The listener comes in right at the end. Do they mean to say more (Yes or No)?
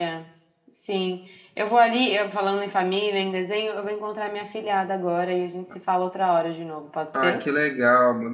Yes